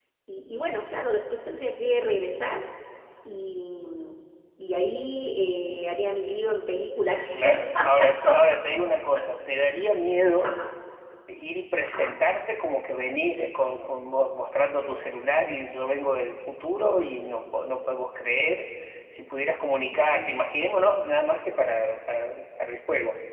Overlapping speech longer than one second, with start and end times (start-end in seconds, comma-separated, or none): 7.3-8.7